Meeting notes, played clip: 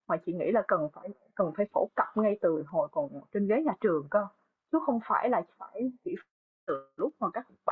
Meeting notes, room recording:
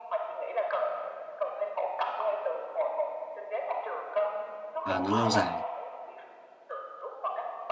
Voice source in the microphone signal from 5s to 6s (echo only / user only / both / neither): both